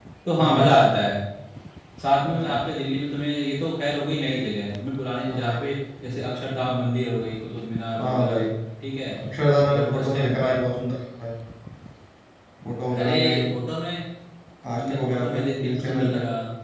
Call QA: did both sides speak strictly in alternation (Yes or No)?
No